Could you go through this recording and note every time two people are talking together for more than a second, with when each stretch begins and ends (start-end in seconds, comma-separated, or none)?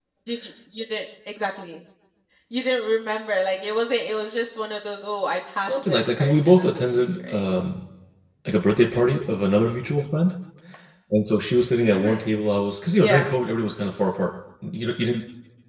5.5-7.5